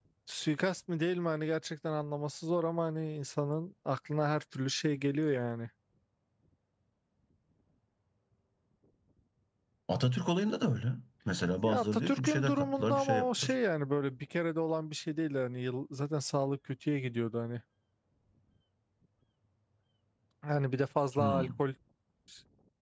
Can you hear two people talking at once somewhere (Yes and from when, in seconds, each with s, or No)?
Yes, from 11.6 s